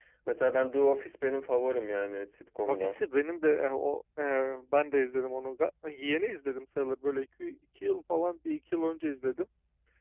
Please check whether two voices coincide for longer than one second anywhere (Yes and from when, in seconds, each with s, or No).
No